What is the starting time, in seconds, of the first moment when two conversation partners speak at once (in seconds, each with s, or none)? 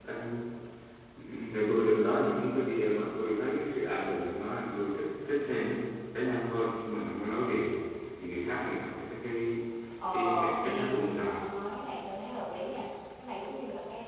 10.1 s